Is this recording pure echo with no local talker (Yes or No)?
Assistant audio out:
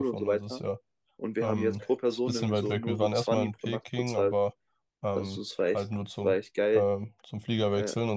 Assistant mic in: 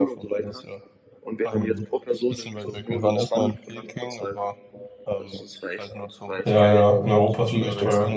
No